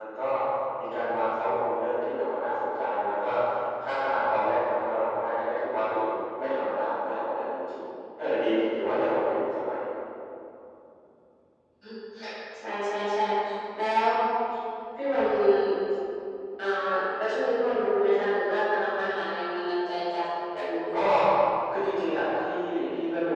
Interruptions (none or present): none